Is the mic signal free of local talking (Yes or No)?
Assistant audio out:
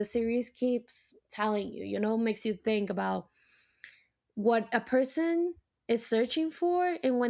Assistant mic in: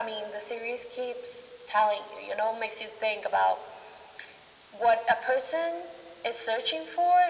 Yes